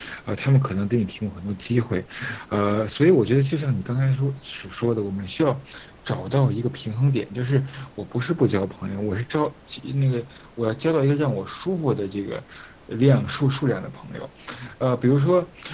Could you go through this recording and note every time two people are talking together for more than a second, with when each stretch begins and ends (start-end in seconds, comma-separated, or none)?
none